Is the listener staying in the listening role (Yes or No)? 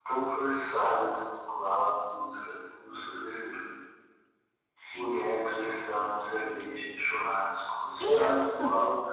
Yes